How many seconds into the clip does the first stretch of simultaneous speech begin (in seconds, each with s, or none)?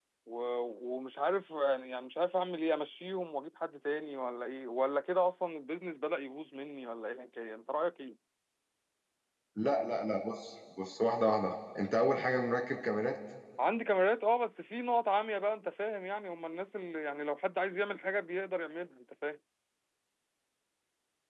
none